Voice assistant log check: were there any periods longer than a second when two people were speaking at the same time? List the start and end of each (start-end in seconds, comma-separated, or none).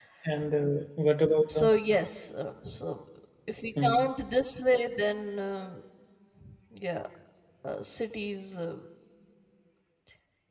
none